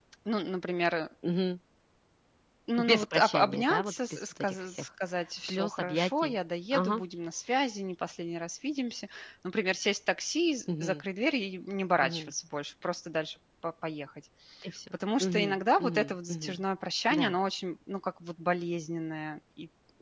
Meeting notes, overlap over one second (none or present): present